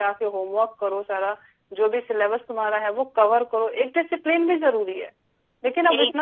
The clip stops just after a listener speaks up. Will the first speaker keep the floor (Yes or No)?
Yes